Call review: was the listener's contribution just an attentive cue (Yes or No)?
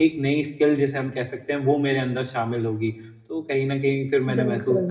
Yes